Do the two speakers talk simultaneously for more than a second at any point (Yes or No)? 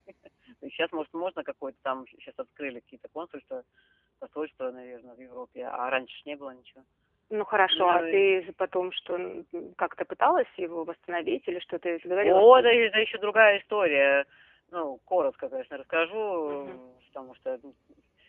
No